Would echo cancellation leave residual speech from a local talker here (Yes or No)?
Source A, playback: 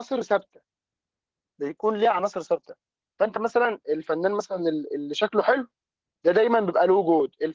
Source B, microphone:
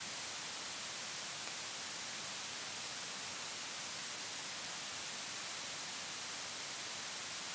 No